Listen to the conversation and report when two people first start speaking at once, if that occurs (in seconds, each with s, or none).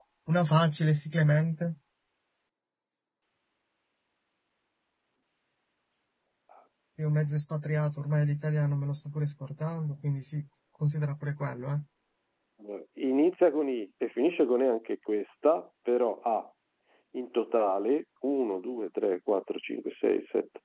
none